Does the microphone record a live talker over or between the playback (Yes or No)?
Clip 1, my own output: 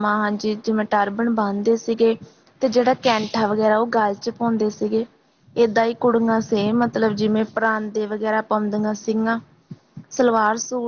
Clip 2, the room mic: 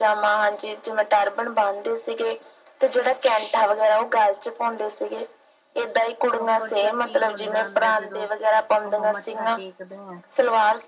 Yes